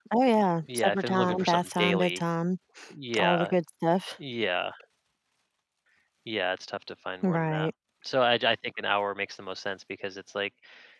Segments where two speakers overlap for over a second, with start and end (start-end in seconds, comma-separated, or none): 0.8-2.2